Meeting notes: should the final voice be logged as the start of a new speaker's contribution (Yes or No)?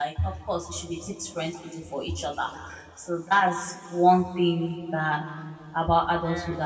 No